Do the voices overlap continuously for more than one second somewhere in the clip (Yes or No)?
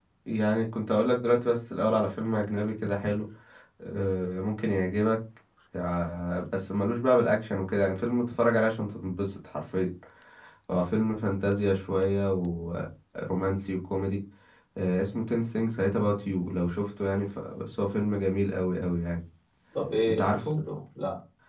No